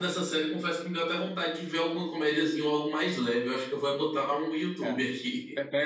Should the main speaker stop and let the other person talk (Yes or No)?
Yes